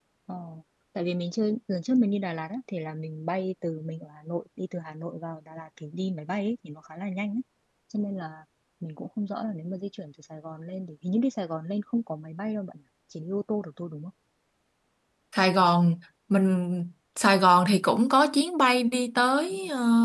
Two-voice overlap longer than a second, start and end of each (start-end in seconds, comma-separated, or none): none